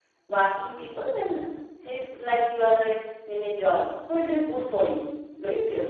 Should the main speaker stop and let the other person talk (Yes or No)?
Yes